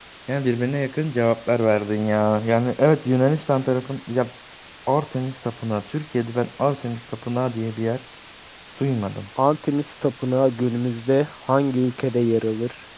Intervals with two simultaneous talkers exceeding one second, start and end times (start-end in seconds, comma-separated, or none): none